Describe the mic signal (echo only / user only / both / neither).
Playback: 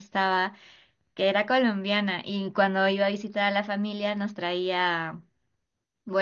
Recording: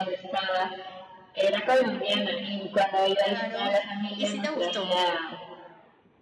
both